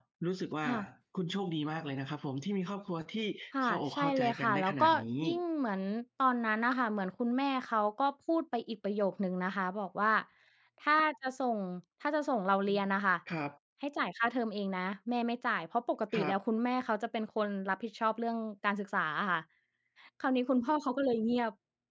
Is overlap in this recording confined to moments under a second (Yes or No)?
No